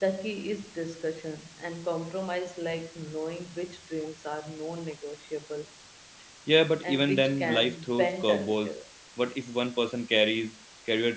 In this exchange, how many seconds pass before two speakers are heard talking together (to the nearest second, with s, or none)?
7 s